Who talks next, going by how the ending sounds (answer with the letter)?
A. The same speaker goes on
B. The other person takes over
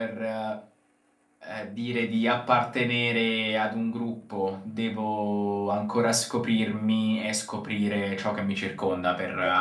B